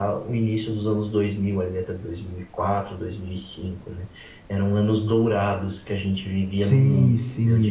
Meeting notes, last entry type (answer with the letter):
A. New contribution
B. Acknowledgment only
A